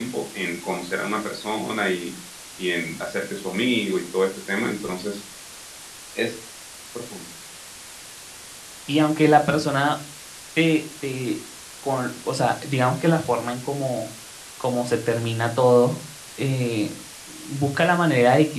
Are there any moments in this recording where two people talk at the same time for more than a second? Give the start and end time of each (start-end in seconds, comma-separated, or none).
none